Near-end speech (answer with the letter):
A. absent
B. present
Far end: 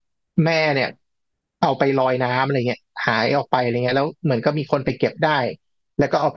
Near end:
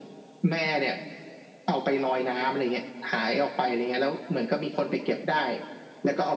A